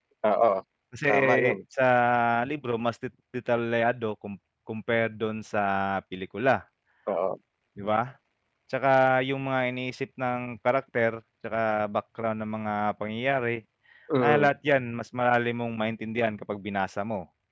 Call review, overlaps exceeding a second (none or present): none